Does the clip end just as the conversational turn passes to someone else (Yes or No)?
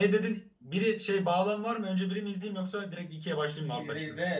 Yes